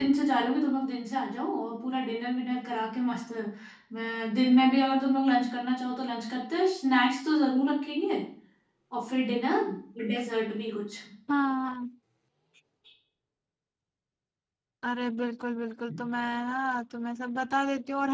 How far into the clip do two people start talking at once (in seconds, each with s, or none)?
none